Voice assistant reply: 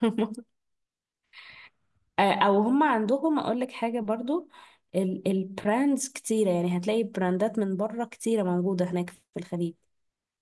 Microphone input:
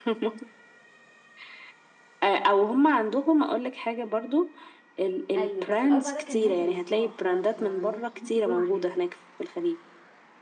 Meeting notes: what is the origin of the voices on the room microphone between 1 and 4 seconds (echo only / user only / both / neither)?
echo only